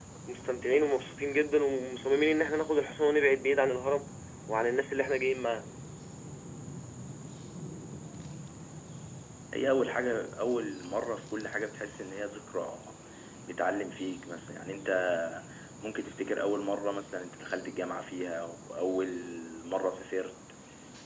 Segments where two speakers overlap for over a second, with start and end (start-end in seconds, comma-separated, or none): none